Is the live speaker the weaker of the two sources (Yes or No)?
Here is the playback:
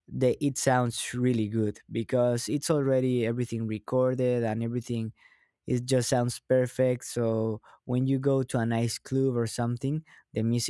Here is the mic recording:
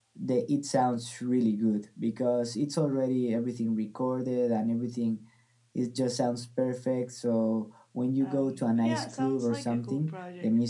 Yes